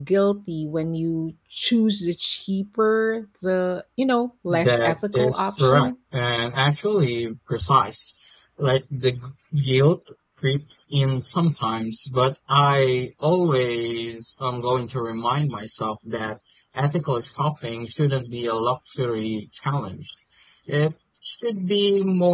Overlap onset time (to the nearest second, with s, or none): 4 s